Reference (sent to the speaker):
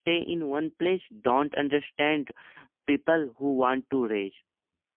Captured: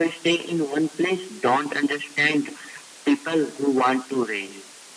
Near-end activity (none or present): none